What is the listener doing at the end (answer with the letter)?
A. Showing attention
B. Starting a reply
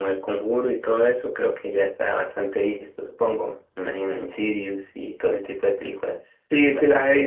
B